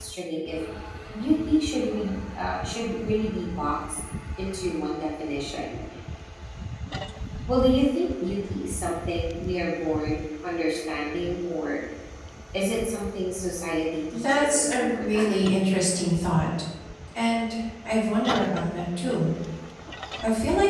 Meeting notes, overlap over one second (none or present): present